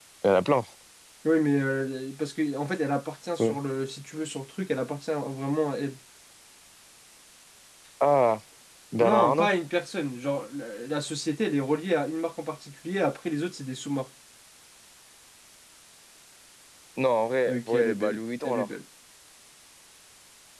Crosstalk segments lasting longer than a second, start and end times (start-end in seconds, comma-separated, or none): 17.5-18.7